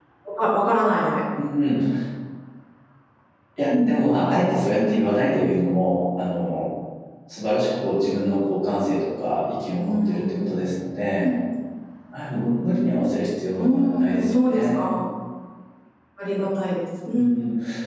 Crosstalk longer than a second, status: present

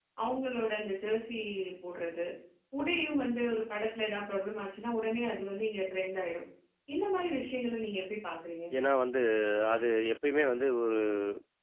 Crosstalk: none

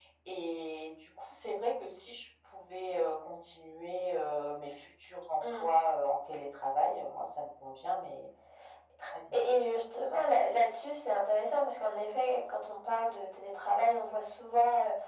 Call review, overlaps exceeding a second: none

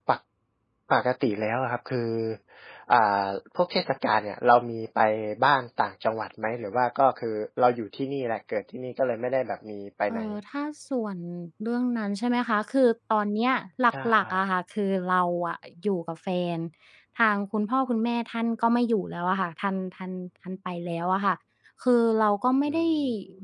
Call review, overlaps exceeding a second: none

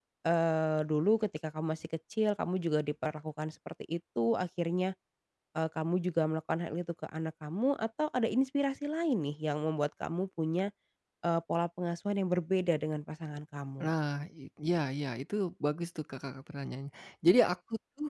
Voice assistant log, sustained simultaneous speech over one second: none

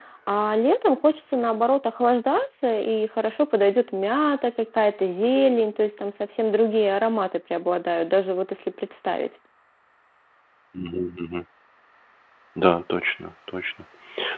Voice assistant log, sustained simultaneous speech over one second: none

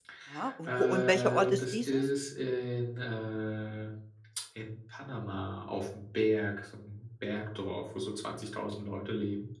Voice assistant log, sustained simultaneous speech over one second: present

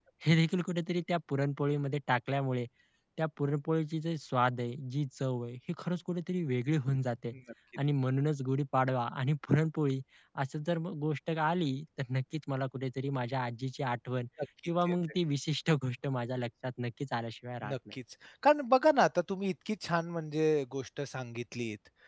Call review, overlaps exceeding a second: none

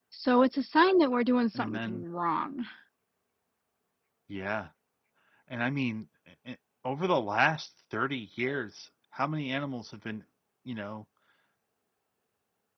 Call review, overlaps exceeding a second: none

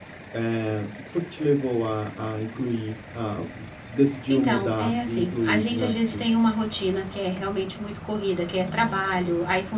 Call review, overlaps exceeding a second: present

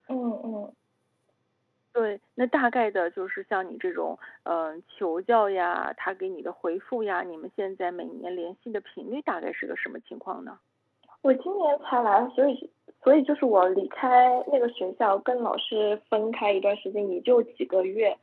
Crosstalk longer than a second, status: none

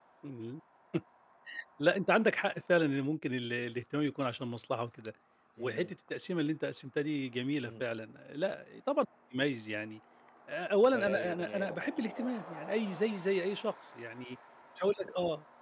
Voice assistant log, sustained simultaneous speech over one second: present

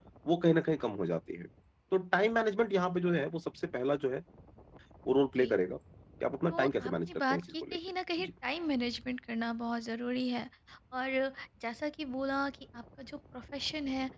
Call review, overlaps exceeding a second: present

